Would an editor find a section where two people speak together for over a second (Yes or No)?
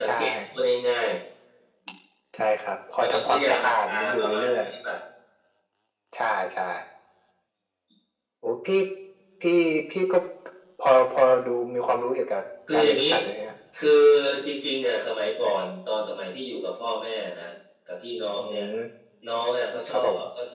Yes